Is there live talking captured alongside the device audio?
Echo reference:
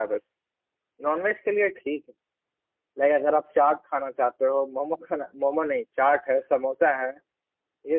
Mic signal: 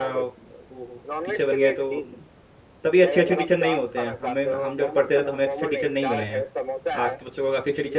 Yes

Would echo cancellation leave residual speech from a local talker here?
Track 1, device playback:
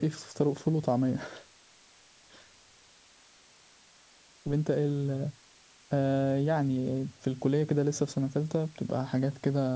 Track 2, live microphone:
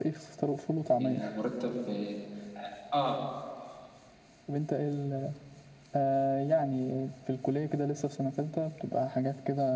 Yes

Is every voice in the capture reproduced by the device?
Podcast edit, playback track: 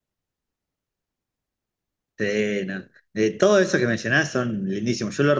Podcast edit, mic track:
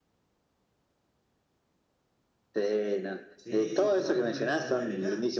No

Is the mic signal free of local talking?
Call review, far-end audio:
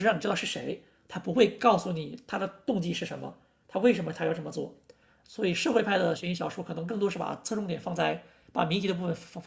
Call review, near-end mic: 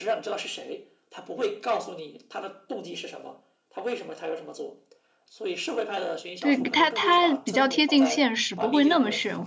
No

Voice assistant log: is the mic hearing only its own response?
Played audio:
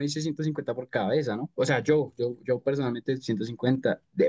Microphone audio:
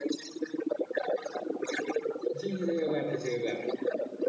No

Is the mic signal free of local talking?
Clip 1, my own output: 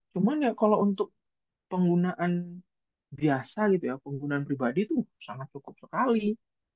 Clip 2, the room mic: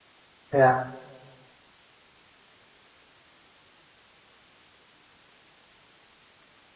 No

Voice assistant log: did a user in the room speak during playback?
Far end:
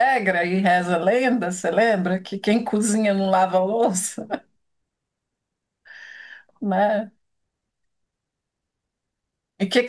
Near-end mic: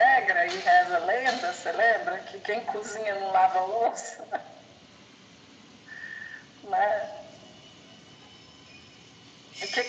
No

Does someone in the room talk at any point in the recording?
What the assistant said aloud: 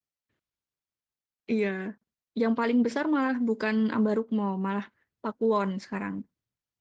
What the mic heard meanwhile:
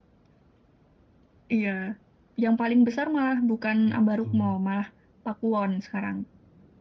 Yes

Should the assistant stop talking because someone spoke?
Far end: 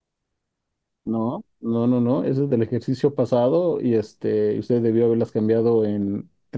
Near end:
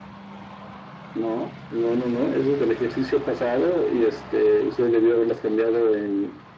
No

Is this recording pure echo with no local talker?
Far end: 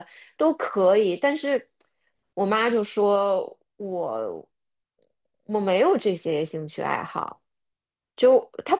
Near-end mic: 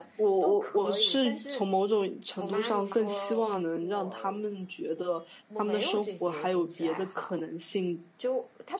No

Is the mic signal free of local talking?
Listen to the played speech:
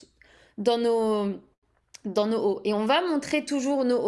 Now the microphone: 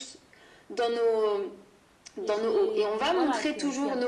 No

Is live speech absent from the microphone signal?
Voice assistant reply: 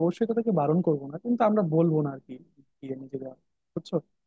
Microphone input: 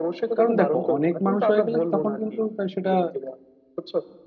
No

